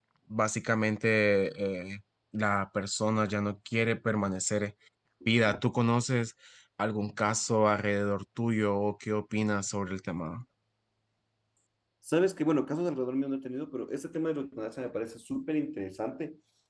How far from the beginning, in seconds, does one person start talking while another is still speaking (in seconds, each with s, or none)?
none